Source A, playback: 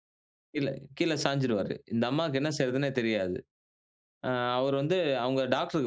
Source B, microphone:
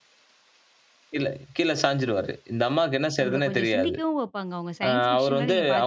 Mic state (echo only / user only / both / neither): both